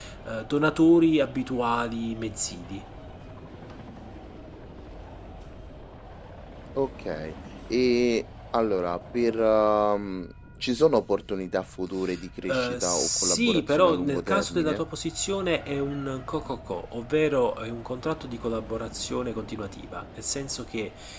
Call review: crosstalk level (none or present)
present